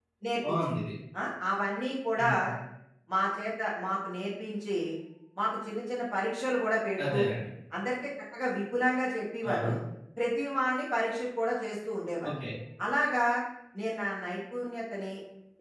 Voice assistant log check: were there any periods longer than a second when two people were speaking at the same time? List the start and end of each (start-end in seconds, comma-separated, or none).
none